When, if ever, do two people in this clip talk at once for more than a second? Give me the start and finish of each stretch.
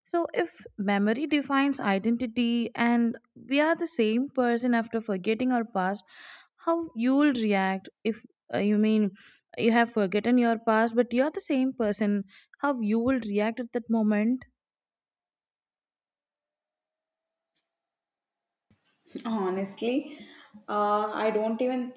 none

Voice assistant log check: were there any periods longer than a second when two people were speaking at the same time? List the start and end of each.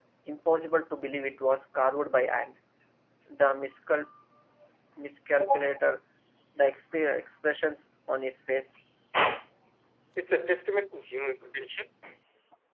none

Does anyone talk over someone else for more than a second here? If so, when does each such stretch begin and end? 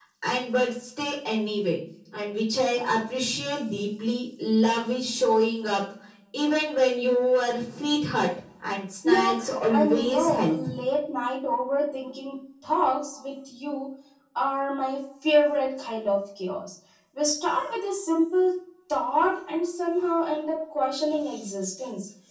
9.0-10.6

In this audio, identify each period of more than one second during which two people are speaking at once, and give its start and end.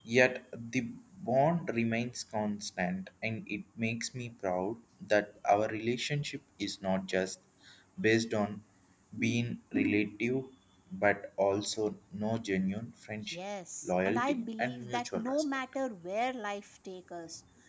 13.8-15.4

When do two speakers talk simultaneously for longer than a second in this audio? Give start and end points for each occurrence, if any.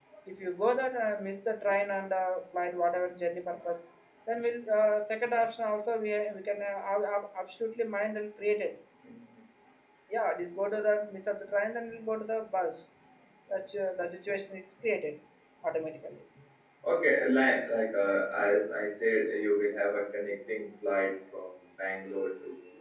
none

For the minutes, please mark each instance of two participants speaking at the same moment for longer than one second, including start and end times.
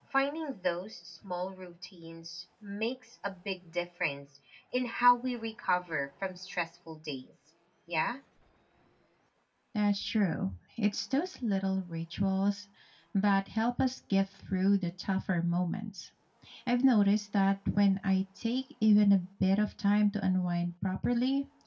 none

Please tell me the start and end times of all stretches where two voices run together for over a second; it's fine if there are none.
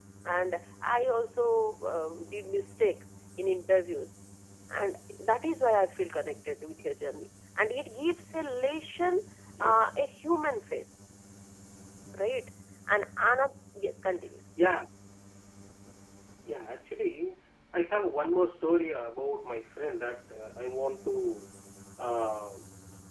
none

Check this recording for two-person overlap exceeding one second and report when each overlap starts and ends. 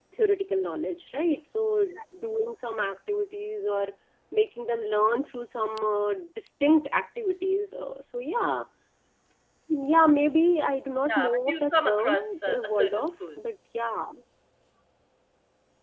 11.1-13.4

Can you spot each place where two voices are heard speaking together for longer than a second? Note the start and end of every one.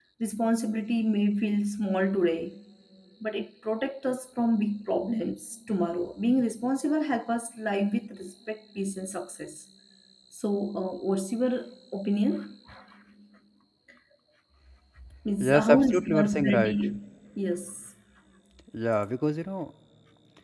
15.4-16.8

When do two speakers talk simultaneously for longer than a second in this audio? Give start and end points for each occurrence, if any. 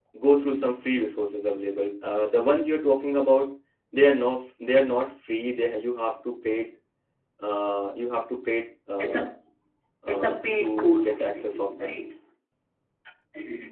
10.1-11.9

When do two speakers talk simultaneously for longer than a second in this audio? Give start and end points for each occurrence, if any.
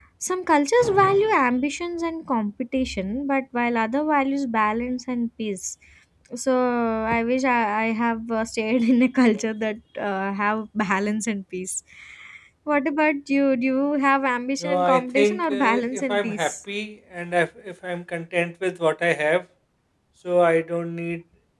14.6-16.5

